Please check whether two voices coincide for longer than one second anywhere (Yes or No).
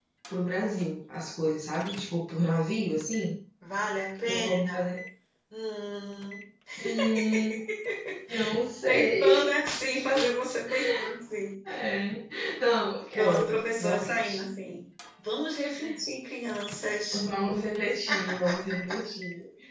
Yes